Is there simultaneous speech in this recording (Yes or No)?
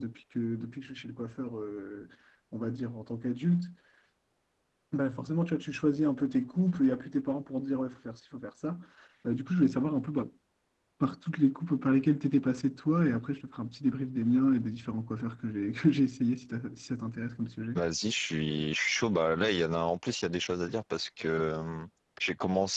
No